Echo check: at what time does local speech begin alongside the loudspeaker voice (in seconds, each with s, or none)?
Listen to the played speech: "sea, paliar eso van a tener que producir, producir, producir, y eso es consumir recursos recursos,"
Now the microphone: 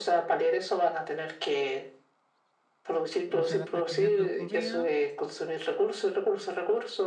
3.3 s